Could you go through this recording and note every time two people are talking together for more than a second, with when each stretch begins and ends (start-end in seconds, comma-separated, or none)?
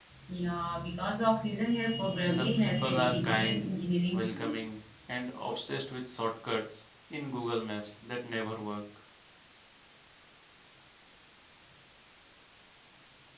2.3-3.7